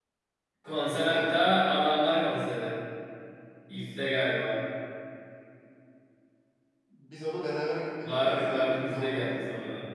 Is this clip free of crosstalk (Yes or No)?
No